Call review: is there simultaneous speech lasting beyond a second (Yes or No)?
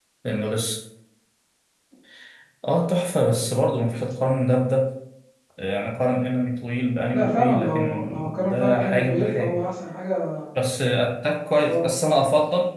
Yes